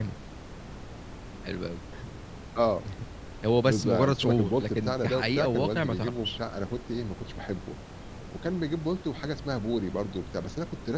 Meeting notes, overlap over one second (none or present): present